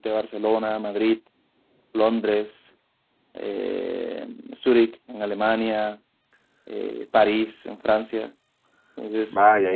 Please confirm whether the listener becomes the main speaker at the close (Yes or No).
Yes